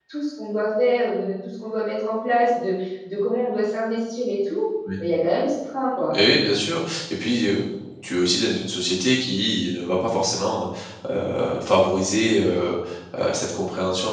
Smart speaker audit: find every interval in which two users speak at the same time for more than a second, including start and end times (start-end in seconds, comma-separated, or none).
none